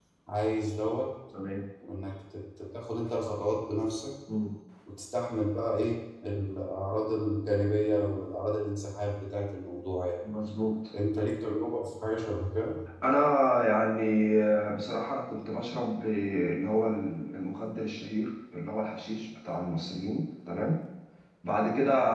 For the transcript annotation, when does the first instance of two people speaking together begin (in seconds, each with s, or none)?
none